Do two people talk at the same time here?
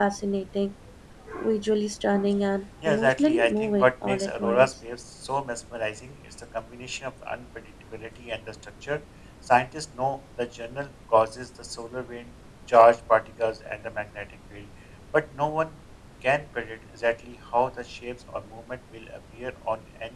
Yes, from 2.8 s

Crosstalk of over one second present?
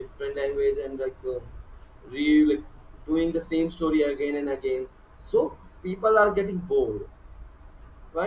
No

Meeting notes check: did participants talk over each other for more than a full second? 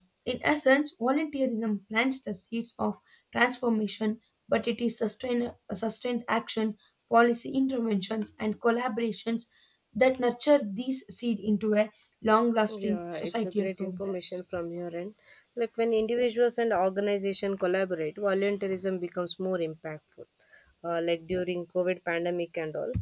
Yes, from 12.7 s

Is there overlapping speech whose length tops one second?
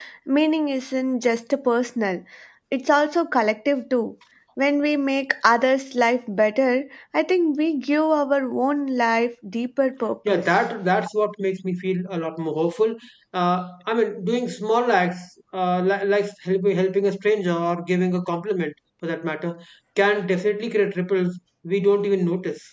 No

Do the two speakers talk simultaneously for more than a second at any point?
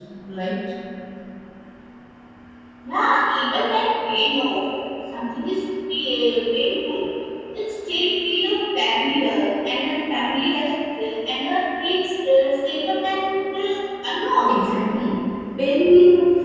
No

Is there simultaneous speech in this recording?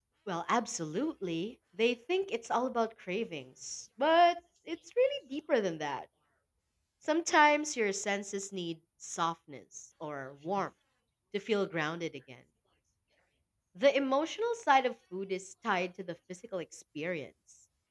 No

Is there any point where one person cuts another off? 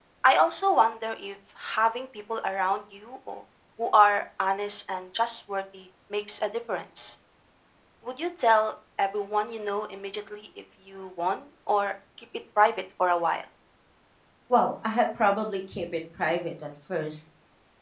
No

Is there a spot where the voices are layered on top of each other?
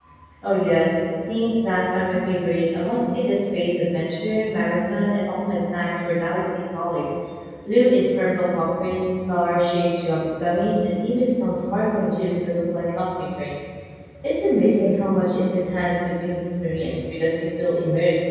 No

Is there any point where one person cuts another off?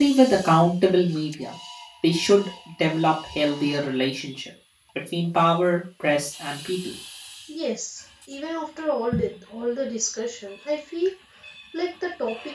No

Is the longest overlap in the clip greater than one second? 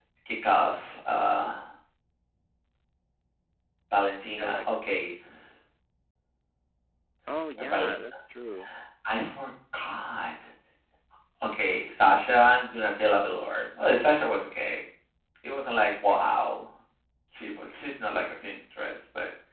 No

